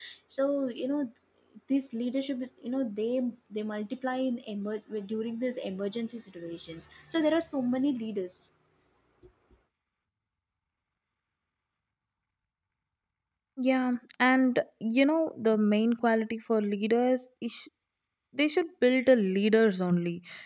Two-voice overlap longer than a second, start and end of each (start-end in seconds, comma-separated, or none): none